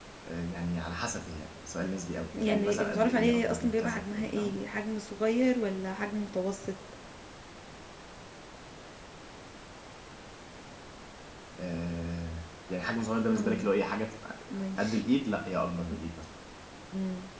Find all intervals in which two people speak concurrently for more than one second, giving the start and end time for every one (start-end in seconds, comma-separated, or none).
2.4-4.6